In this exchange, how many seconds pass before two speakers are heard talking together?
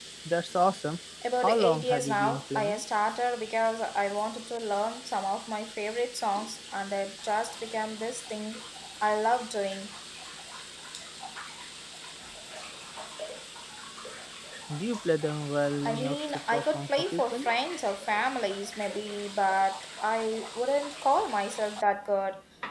1.4 s

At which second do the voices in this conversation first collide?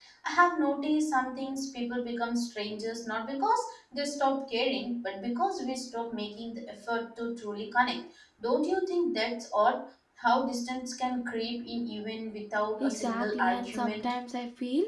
12.8 s

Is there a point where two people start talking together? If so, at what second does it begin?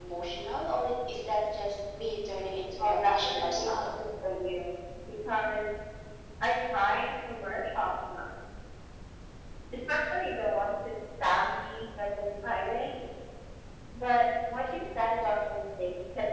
2.8 s

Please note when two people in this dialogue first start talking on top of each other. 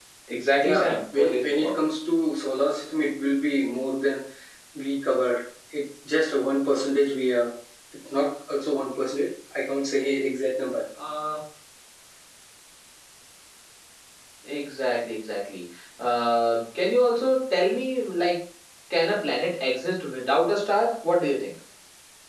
0.6 s

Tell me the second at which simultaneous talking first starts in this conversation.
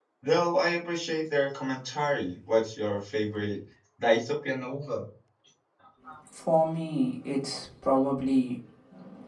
none

